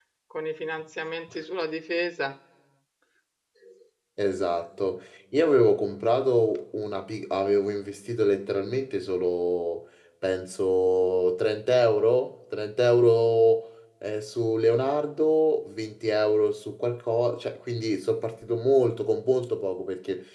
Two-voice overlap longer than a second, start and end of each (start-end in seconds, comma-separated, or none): none